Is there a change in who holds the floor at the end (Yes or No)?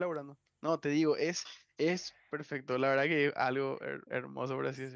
Yes